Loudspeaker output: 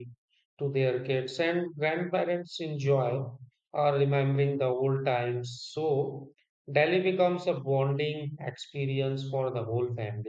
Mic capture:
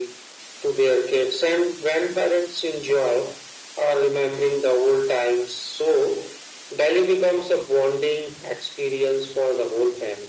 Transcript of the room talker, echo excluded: none

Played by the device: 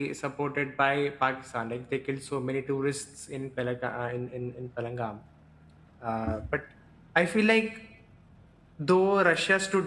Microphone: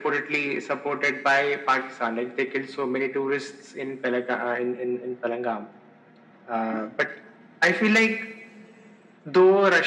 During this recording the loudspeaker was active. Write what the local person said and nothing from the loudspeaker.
none

